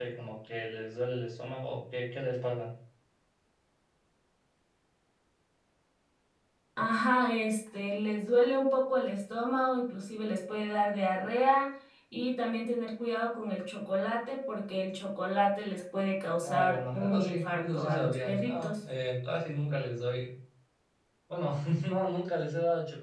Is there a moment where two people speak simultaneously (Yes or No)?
Yes